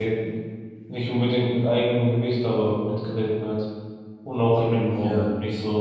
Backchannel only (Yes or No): No